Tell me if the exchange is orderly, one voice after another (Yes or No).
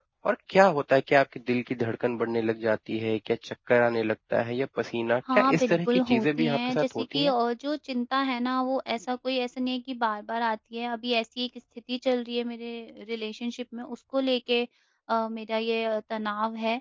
No